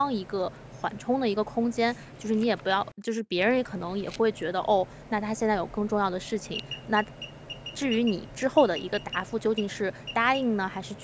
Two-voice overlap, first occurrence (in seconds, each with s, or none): none